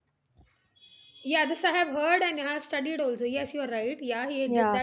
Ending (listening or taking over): taking over